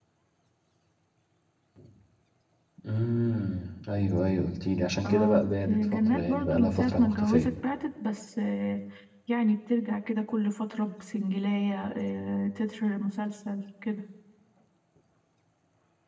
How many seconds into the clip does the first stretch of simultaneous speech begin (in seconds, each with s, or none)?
5.0 s